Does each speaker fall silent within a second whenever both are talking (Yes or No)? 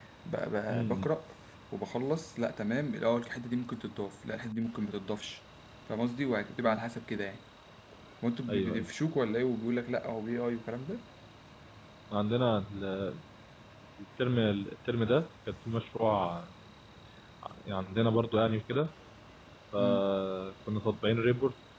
Yes